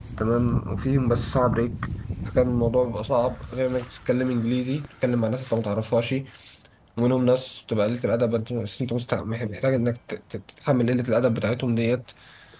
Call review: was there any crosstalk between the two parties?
No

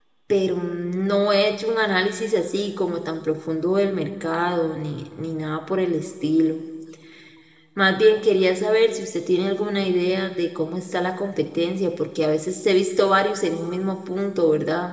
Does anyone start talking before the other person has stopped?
No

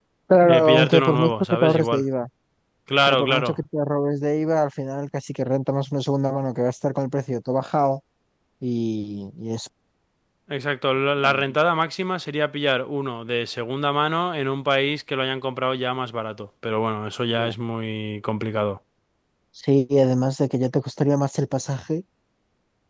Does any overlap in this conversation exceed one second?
Yes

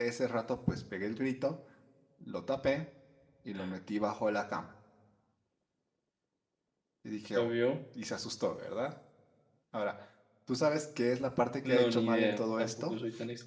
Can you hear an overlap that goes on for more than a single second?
Yes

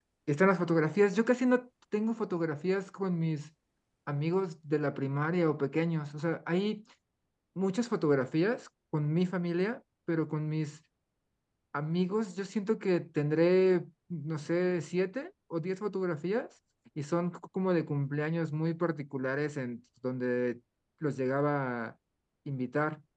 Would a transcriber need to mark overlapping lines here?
No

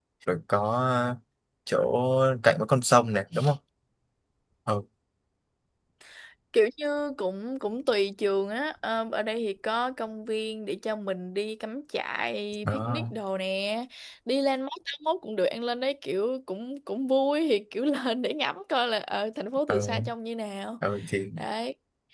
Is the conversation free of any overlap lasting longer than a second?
Yes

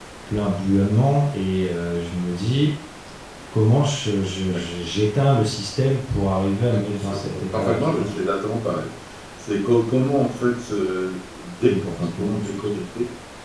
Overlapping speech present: Yes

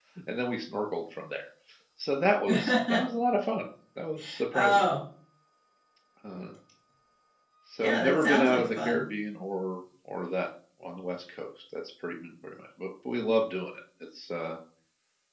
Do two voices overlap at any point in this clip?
Yes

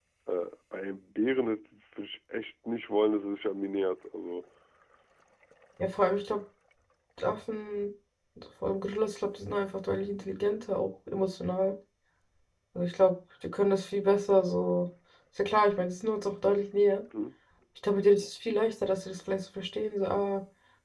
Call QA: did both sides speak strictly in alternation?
Yes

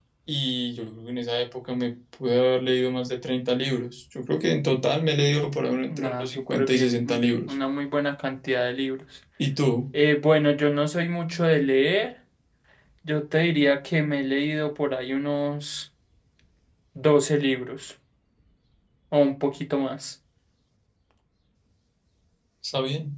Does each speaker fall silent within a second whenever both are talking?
No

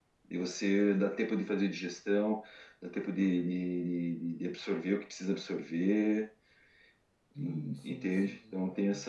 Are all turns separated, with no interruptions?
No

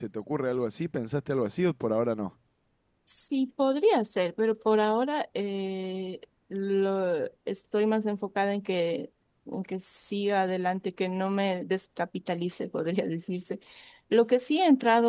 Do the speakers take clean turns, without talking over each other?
Yes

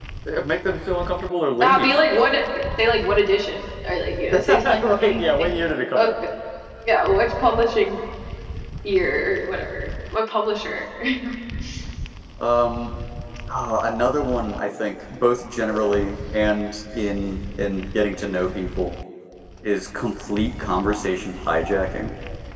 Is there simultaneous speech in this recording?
Yes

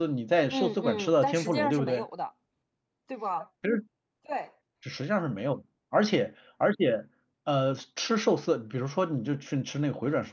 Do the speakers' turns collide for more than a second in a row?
Yes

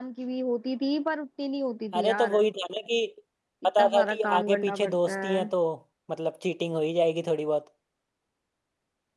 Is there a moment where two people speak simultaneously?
Yes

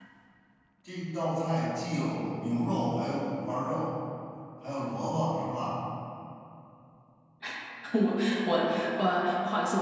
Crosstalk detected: No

